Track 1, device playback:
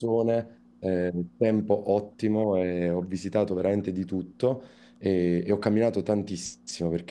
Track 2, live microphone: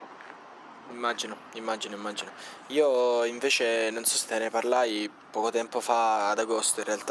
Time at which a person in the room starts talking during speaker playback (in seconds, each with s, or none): 0.9 s